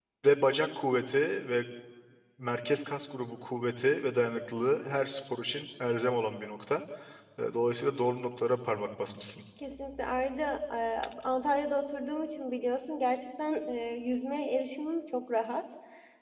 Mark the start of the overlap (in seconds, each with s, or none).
none